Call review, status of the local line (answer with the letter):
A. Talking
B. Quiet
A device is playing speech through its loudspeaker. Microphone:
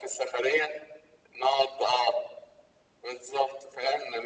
B